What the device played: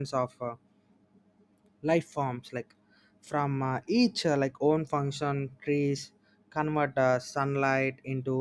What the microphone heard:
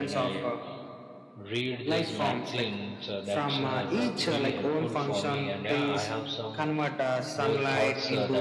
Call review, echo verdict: present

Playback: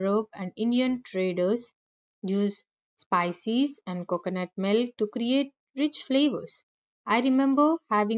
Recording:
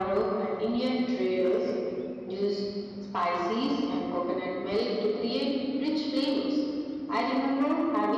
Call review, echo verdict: present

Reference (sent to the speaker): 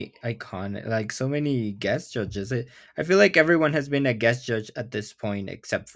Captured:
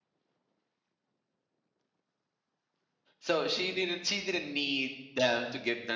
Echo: none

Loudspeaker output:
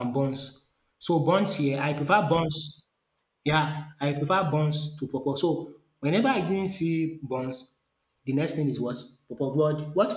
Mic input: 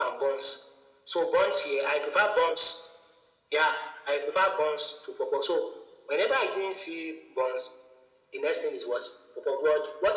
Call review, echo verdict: present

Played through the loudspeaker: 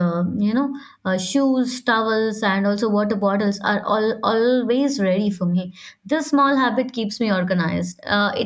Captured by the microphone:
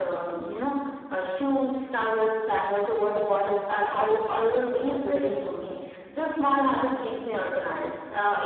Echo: present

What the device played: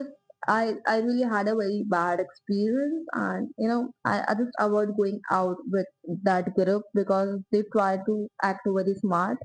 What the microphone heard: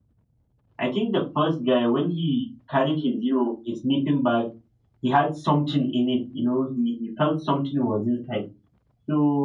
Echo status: none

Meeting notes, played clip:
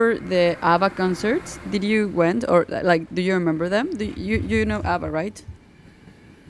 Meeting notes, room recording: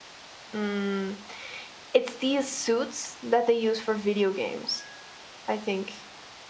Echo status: none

